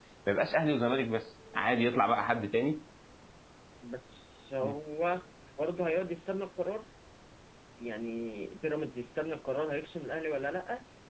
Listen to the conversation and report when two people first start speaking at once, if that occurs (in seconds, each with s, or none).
none